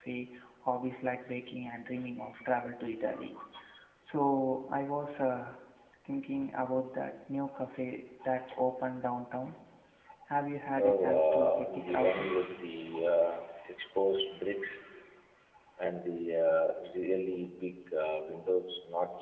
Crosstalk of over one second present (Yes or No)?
Yes